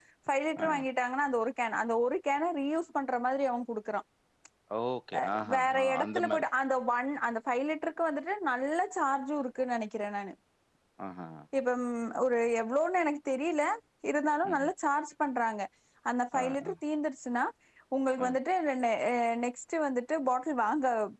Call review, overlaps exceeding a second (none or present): present